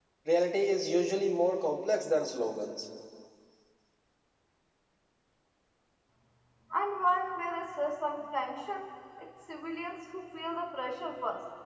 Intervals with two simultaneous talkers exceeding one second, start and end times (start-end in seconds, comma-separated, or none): none